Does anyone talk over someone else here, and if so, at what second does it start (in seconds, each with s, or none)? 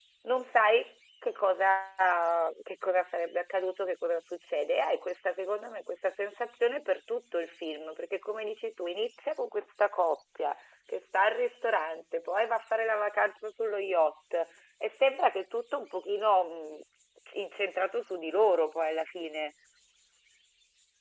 none